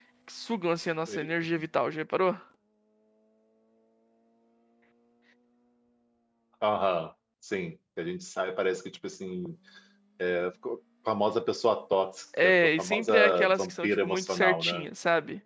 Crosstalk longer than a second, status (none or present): present